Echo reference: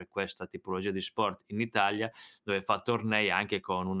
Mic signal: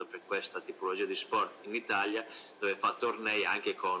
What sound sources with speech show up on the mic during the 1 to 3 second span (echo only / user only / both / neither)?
echo only